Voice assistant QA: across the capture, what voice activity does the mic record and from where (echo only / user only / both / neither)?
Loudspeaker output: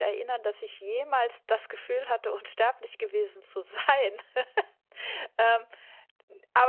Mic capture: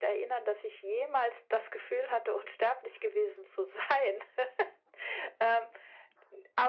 echo only